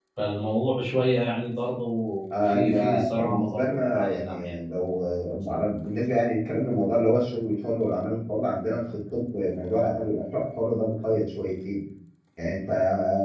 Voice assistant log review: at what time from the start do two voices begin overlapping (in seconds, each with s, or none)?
2.5 s